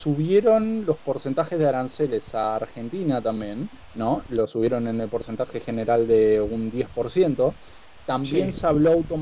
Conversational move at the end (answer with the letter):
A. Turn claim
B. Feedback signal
B